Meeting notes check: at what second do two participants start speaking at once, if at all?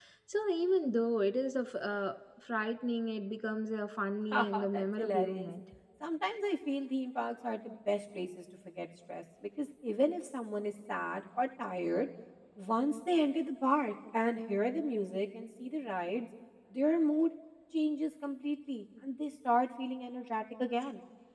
4.3 s

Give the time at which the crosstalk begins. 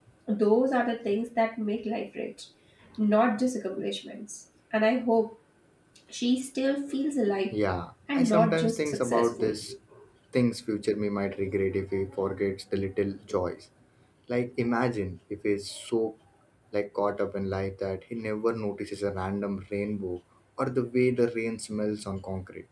8.1 s

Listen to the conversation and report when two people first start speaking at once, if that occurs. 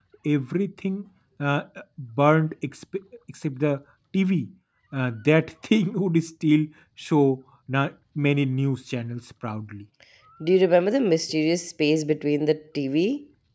none

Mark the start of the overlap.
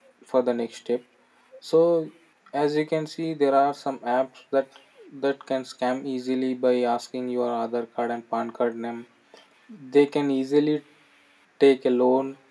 none

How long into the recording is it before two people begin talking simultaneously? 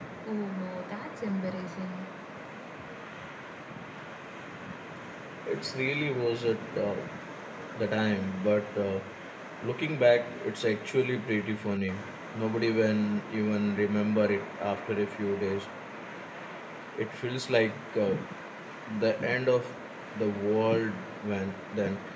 none

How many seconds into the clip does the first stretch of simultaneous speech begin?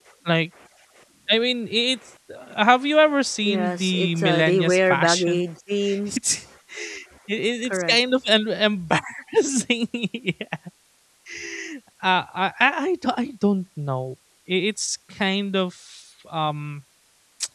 3.4 s

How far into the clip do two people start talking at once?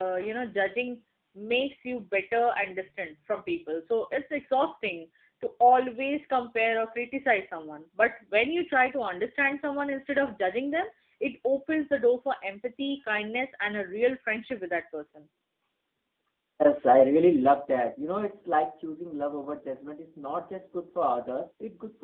none

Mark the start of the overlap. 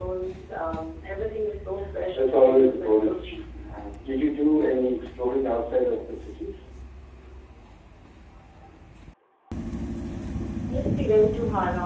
2.1 s

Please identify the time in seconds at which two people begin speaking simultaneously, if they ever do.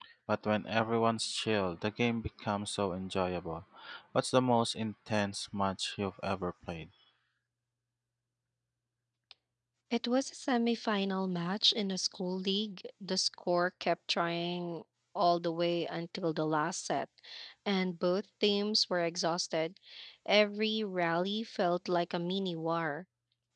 none

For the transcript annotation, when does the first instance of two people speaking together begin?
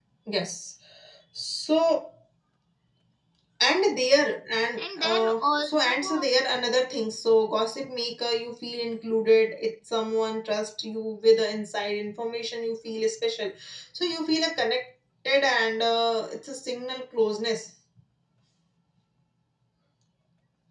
4.8 s

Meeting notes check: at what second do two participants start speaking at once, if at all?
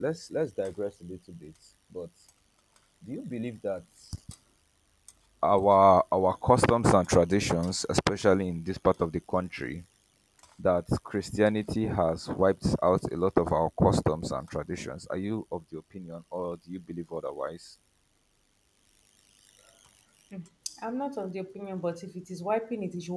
none

